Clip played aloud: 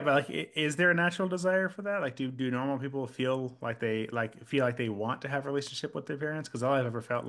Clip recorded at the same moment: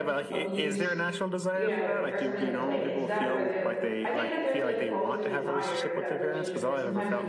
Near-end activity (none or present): present